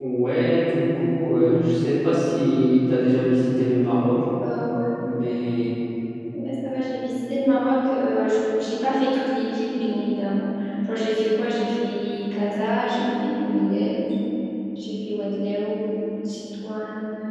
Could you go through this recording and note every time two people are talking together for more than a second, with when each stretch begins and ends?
none

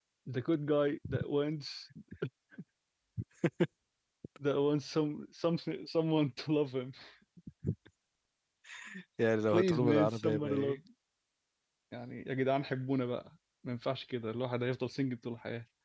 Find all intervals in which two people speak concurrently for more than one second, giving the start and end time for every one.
9.5-10.8

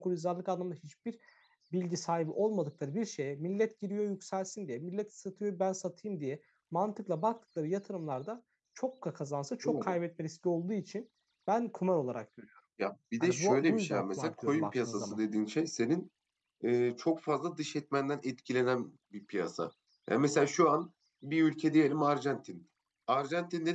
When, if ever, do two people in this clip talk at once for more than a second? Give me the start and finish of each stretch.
13.2-15.2

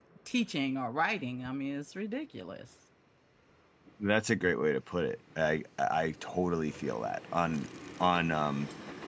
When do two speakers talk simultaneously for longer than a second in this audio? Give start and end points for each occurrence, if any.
none

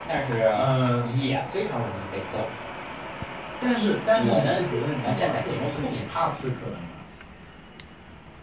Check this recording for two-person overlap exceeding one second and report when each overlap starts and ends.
4.2-6.3

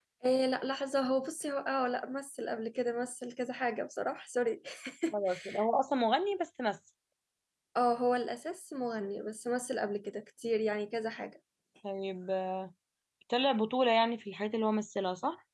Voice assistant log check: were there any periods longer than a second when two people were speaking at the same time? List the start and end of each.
none

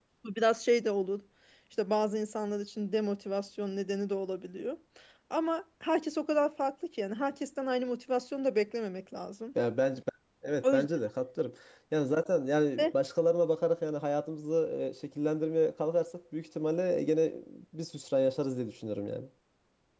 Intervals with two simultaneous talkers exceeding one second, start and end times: none

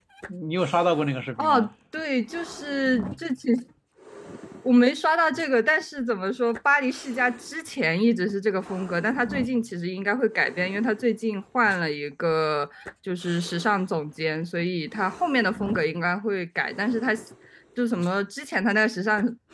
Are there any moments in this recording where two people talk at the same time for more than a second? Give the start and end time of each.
none

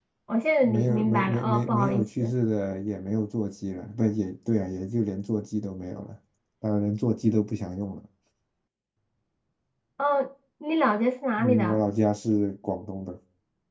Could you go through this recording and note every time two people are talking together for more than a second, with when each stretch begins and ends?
0.6-2.3

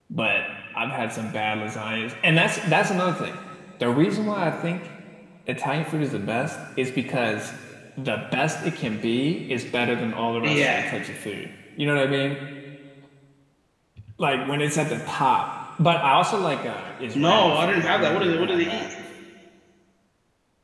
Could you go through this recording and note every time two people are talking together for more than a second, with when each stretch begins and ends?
17.1-18.9

